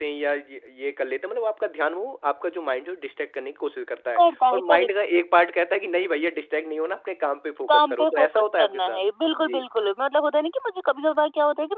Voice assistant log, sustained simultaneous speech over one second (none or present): present